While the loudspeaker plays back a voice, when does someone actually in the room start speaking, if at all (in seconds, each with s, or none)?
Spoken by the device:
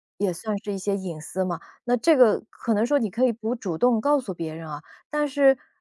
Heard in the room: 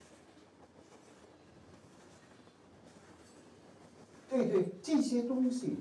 4.2 s